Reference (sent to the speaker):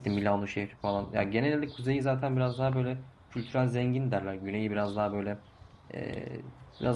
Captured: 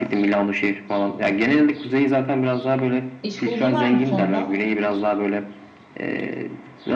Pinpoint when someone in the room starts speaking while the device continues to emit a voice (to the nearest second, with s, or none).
3 s